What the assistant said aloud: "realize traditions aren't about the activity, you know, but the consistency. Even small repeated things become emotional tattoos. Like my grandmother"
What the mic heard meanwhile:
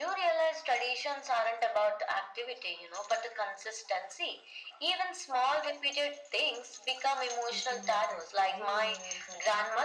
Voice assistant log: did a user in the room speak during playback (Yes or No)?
Yes